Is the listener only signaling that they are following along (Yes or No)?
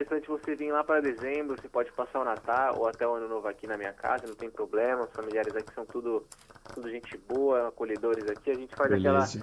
Yes